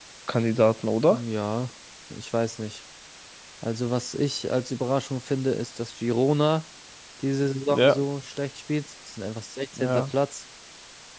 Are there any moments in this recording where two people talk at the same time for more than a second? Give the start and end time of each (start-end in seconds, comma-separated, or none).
none